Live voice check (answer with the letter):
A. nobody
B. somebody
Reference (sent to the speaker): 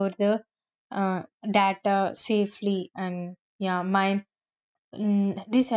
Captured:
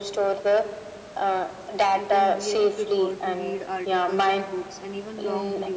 B